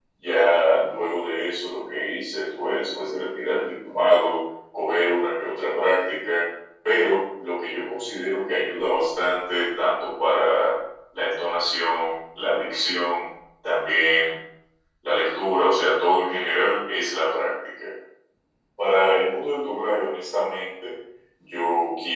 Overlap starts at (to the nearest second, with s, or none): none